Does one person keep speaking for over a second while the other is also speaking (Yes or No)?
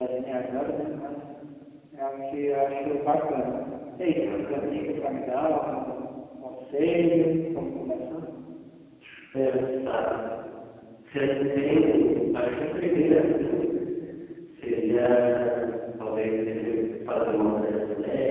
No